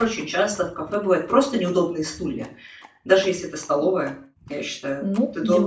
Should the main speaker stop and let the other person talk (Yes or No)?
Yes